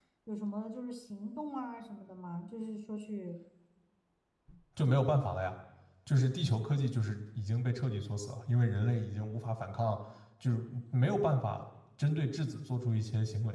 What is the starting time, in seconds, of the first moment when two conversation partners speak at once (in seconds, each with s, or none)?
none